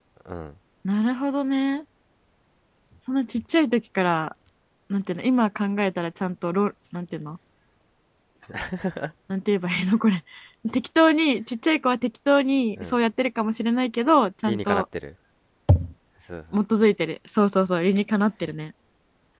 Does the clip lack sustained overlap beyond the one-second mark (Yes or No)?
Yes